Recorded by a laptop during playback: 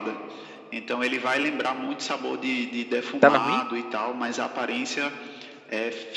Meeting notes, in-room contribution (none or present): present